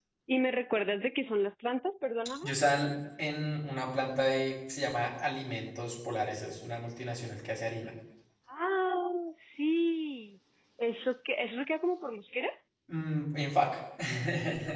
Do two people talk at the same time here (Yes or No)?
No